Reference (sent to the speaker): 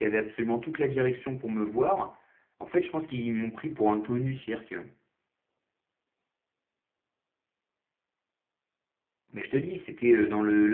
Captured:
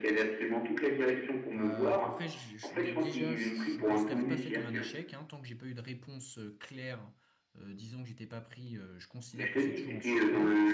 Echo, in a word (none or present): present